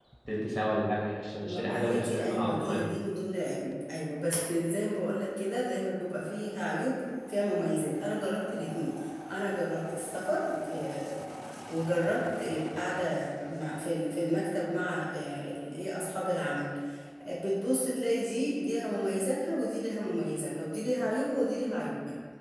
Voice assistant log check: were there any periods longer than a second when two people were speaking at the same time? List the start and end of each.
1.4-2.9

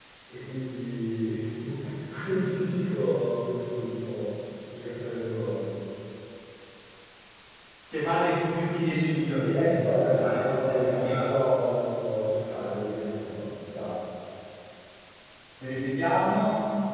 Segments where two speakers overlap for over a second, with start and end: 9.3-11.3

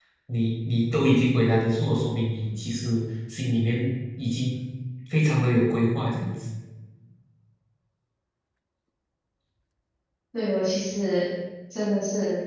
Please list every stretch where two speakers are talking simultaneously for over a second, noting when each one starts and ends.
none

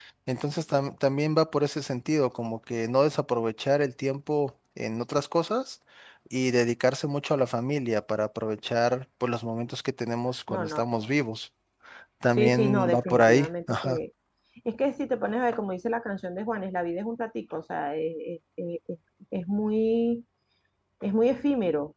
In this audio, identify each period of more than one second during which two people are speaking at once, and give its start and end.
12.3-14.0

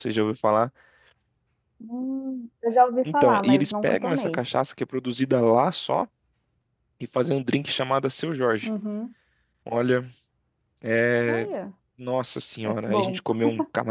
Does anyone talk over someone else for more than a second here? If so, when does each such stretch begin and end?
3.1-4.4

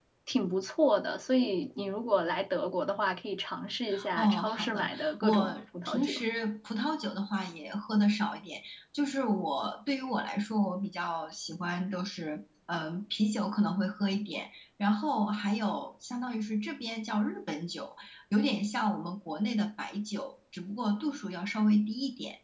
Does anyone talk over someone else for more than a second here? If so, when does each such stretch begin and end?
4.2-6.2

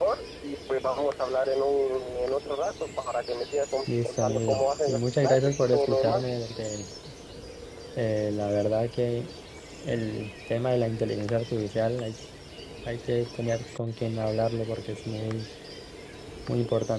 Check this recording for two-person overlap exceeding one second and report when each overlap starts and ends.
4.0-6.2

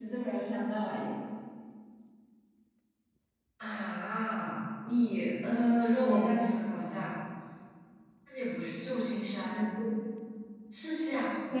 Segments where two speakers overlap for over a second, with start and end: none

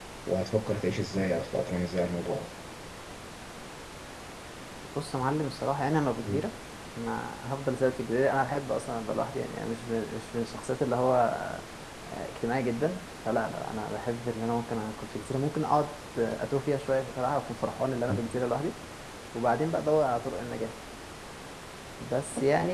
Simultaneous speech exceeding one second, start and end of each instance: none

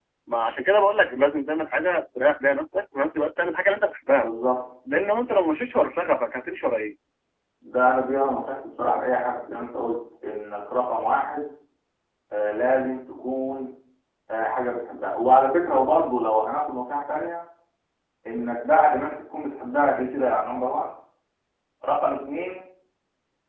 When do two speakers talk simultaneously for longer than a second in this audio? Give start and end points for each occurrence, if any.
none

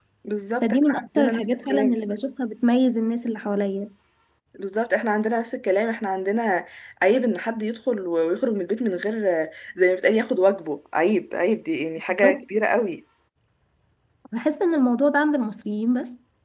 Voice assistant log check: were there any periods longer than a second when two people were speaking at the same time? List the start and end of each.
0.6-2.0

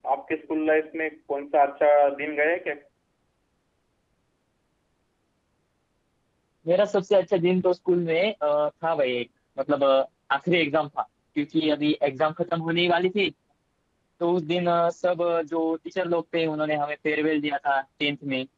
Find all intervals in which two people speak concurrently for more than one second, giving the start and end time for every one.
none

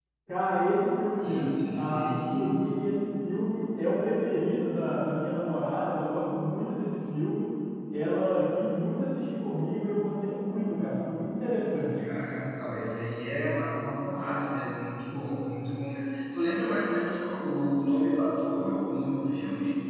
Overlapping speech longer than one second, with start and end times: 1.2-2.4

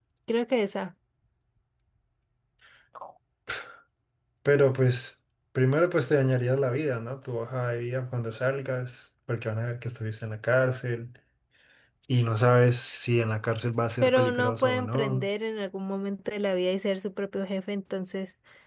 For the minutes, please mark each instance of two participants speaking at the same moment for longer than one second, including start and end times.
14.0-15.3

